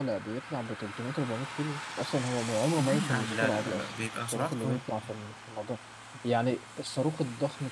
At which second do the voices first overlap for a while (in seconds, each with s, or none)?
2.8 s